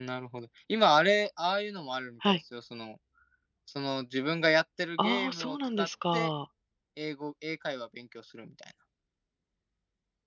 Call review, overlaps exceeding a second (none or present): present